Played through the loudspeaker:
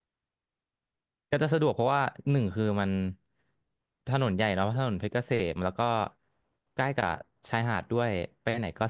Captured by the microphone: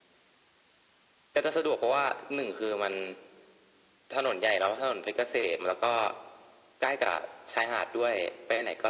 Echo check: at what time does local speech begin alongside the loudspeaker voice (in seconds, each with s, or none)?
none